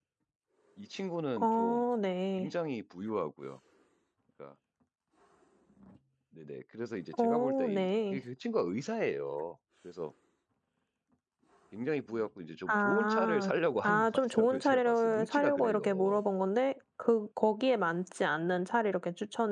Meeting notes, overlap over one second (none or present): present